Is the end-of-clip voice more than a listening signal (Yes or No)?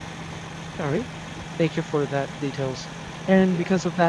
No